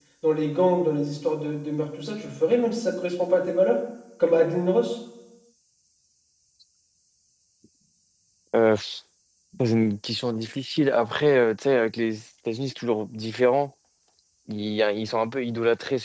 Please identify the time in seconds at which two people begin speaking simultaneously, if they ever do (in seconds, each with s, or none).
none